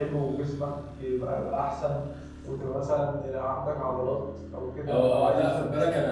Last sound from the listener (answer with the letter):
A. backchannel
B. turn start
B